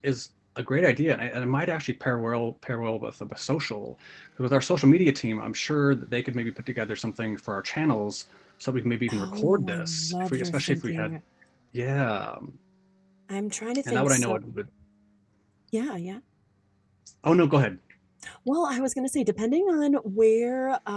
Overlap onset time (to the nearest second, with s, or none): 9 s